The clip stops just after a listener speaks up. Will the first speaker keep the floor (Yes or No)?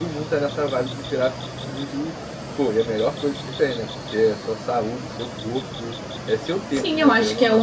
No